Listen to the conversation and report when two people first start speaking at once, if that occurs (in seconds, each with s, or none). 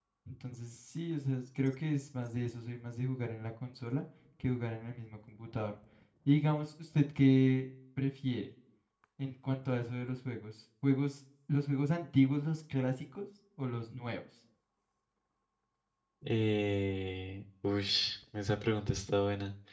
none